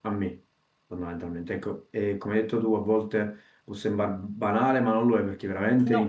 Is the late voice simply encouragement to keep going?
Yes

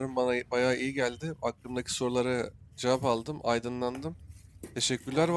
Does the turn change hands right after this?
No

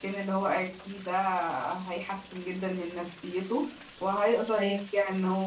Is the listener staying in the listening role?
Yes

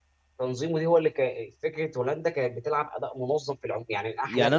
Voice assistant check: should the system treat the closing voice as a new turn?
Yes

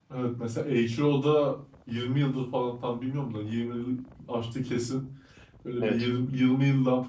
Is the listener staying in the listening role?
Yes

